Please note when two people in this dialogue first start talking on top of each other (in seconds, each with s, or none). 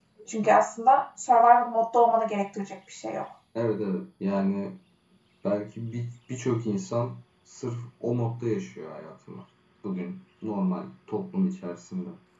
none